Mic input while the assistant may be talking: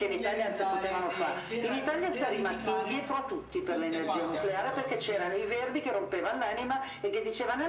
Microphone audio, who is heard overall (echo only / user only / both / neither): both